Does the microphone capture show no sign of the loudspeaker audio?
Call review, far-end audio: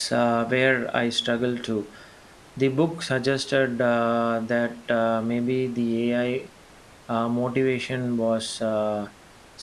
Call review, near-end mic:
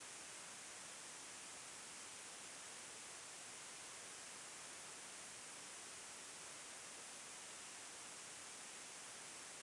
Yes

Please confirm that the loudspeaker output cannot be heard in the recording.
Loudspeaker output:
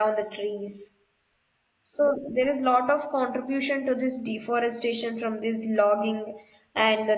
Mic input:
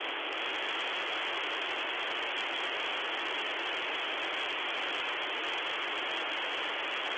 Yes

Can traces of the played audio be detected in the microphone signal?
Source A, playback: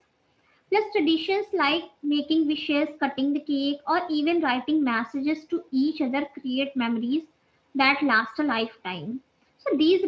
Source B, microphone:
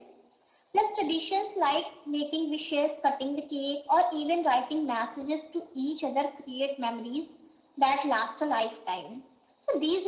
Yes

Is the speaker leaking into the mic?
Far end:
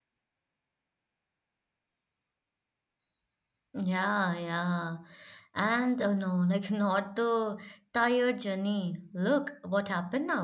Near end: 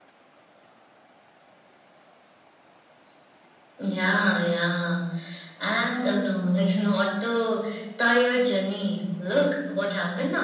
Yes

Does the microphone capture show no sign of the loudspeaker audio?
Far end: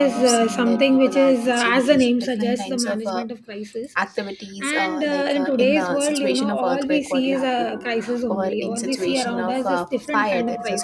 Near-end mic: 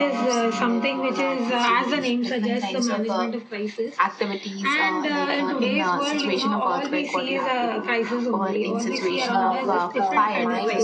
No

